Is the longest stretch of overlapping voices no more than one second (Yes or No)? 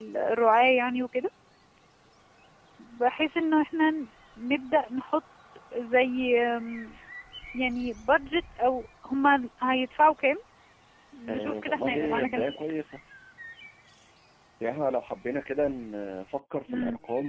No